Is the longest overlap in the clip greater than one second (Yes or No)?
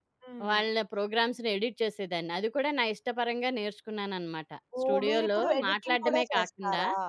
Yes